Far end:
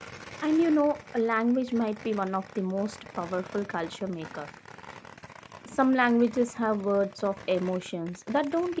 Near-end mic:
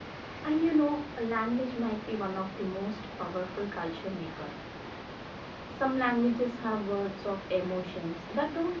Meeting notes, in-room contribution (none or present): none